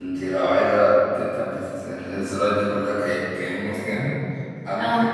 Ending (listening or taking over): listening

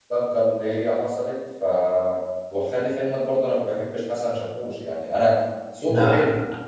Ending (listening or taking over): listening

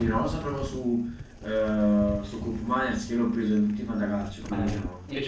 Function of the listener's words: taking over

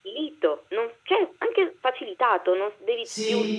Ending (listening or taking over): taking over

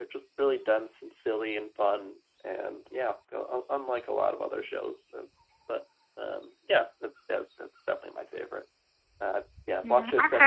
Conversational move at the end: taking over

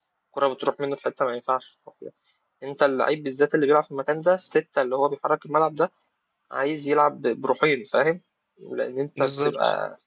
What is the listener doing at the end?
listening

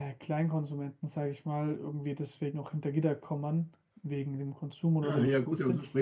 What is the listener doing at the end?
taking over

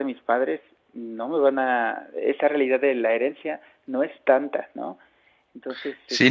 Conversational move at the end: taking over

